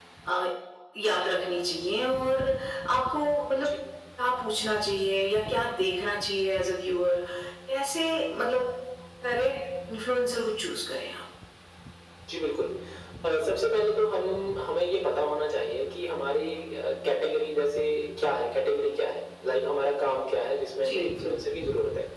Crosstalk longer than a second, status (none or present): none